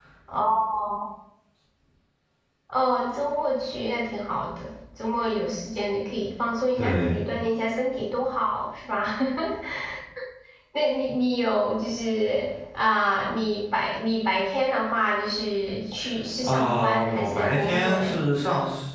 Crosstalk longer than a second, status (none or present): present